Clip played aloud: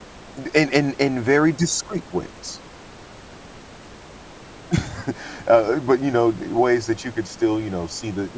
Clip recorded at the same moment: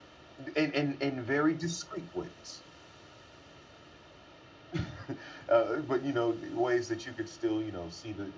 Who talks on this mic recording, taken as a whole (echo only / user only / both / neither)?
echo only